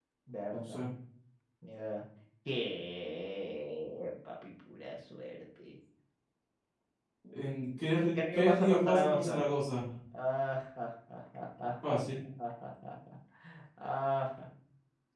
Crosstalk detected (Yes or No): Yes